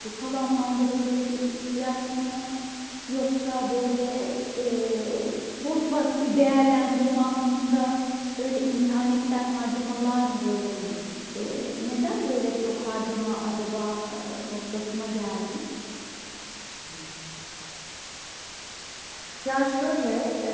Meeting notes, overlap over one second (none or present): none